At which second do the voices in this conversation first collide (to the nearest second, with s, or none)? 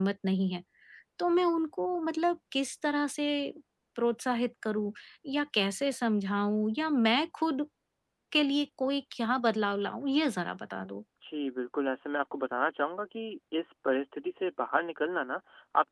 none